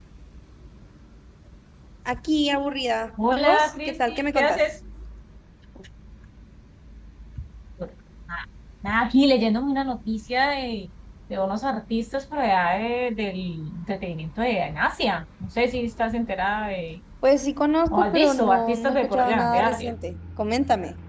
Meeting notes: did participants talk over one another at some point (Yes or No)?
Yes